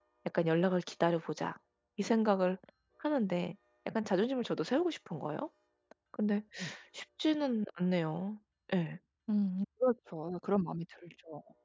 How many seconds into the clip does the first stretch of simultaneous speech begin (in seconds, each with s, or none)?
none